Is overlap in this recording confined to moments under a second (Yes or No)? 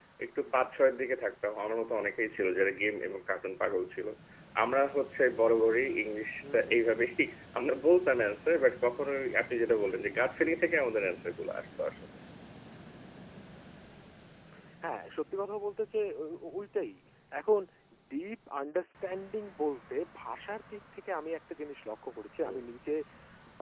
Yes